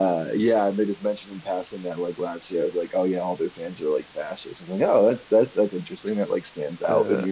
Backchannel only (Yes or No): Yes